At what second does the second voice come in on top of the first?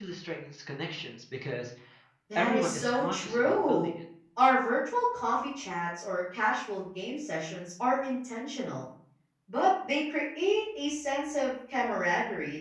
2.4 s

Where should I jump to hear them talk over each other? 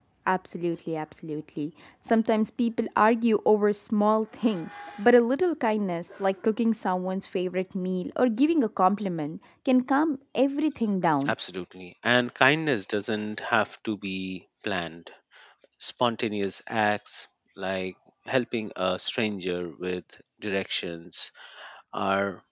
none

